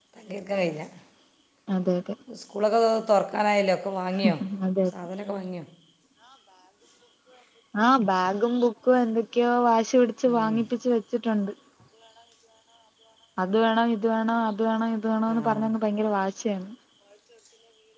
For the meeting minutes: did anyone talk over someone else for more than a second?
No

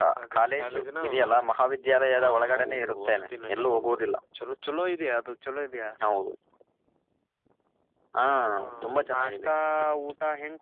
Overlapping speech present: Yes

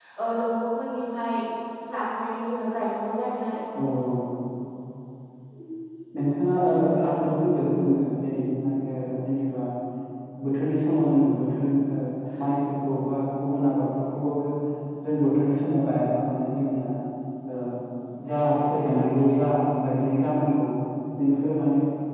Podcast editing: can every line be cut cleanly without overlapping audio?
Yes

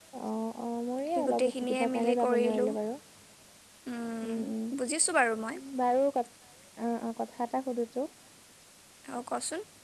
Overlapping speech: Yes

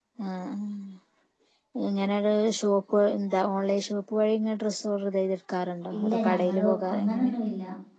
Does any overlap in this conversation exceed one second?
Yes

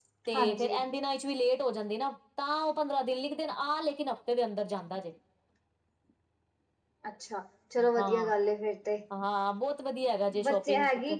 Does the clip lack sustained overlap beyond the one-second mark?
Yes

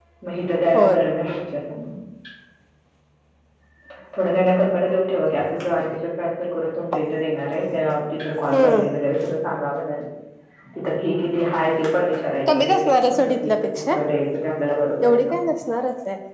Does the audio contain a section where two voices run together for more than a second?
Yes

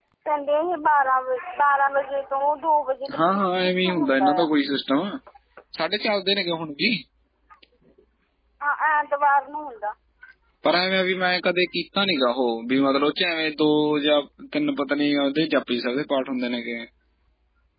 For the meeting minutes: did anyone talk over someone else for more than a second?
Yes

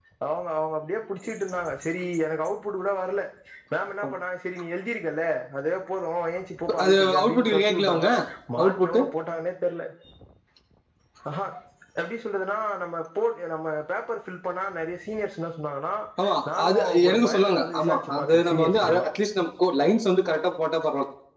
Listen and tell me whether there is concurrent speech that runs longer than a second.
Yes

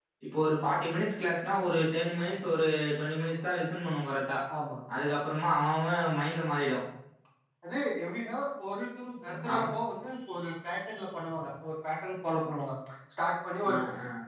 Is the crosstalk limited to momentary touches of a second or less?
Yes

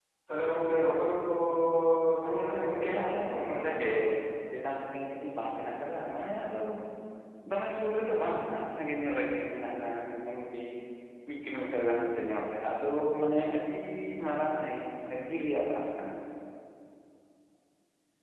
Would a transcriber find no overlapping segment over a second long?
No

